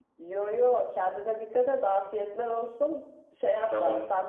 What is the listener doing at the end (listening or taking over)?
listening